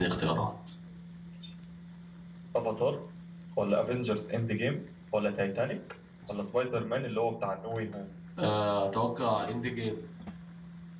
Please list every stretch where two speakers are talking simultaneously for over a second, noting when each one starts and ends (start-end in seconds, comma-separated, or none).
none